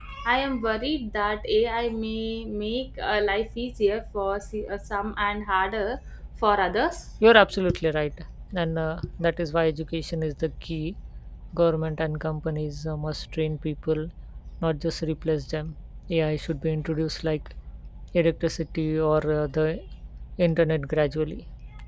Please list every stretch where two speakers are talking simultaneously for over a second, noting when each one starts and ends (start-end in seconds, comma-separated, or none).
none